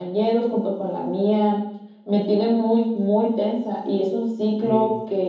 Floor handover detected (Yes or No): No